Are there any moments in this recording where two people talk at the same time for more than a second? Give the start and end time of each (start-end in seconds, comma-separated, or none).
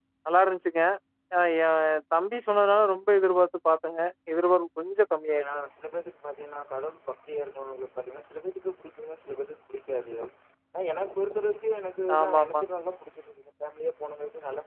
none